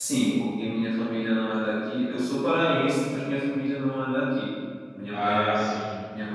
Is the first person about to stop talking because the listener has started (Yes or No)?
No